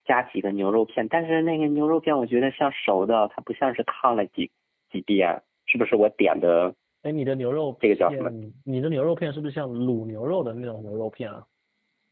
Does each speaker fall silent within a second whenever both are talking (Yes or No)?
Yes